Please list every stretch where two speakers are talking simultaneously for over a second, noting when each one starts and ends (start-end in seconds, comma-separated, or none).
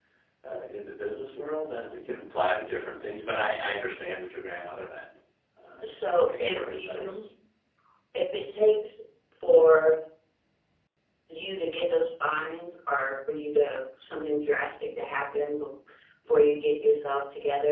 5.8-7.2